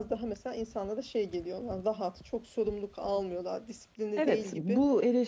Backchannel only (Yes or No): No